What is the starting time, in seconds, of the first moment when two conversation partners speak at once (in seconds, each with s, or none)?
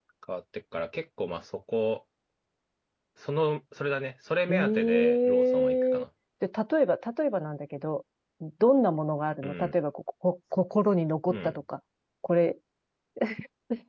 4.5 s